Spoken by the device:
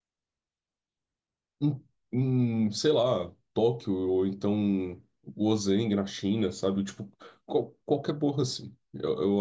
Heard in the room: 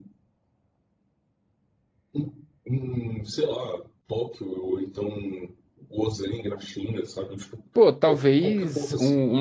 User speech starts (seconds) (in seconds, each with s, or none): 7.7 s